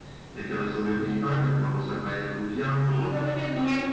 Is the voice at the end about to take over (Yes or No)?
Yes